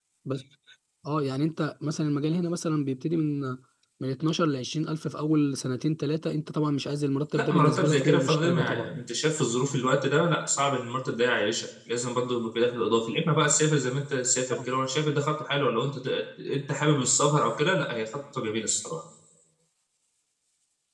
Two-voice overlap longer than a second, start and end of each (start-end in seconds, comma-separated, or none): 7.3-8.9